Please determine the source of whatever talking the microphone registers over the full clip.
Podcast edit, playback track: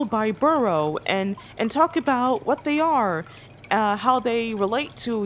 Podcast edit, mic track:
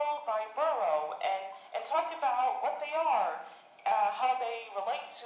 echo only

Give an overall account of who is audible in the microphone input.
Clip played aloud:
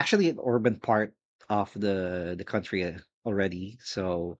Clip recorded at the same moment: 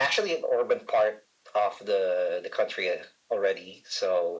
echo only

